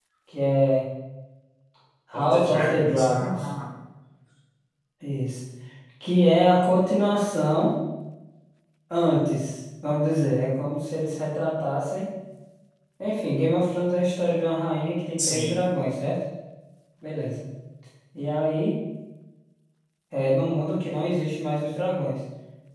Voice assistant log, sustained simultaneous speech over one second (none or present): present